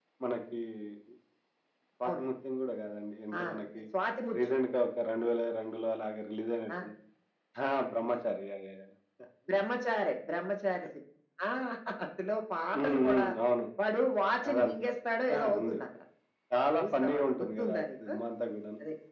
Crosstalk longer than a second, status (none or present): present